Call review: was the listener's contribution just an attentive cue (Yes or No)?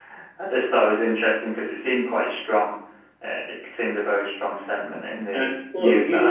No